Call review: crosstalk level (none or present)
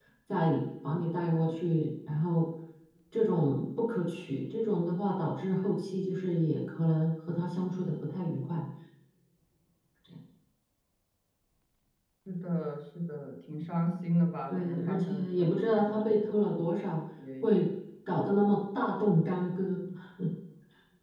present